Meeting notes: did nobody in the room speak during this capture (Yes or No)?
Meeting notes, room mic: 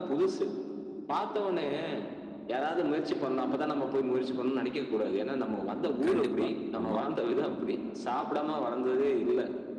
No